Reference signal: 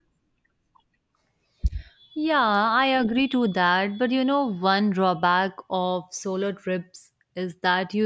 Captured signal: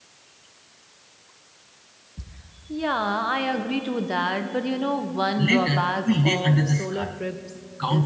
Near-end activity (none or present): present